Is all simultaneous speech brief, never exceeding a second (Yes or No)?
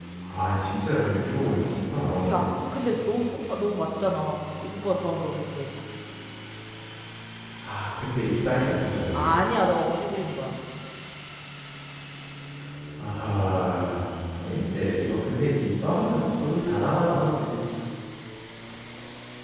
Yes